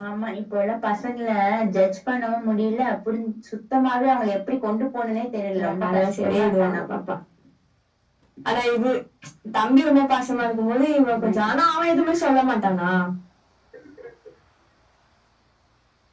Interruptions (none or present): present